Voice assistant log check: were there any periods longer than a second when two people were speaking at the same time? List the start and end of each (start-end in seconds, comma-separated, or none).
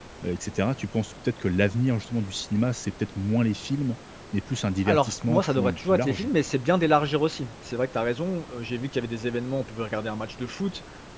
4.9-6.3